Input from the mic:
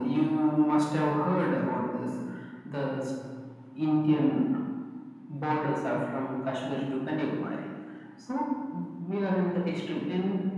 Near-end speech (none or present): none